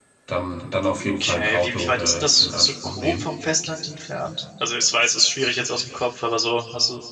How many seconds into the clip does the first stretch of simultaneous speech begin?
1.2 s

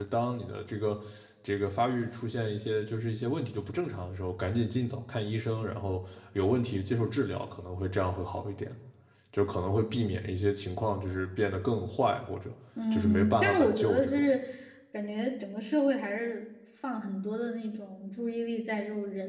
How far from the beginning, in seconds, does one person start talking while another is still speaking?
12.8 s

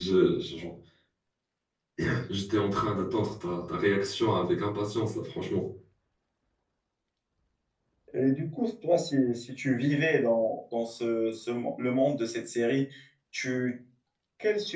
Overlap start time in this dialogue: none

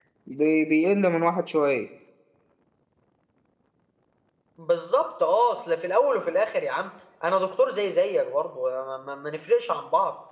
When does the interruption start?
none

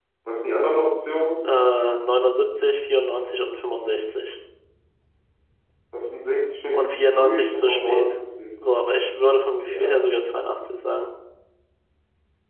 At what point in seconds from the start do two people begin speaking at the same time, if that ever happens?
6.7 s

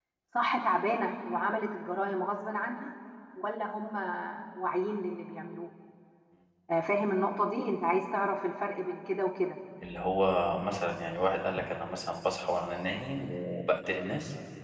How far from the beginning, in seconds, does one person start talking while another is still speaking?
none

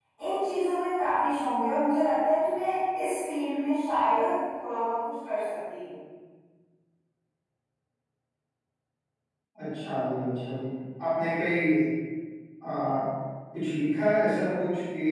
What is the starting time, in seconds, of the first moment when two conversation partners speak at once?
none

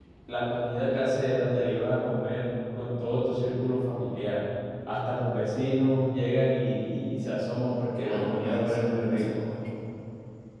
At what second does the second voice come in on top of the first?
8.0 s

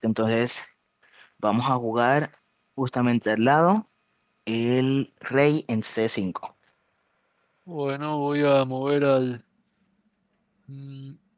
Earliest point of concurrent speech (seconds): none

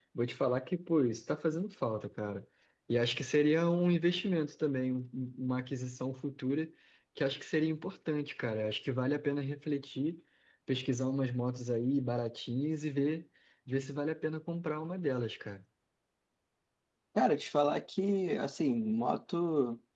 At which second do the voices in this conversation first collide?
none

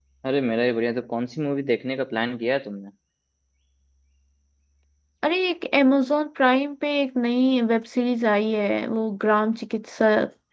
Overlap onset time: none

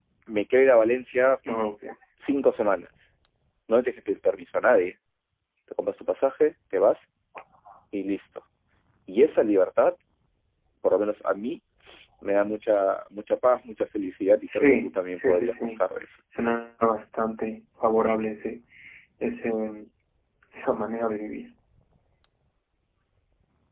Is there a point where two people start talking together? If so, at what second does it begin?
14.5 s

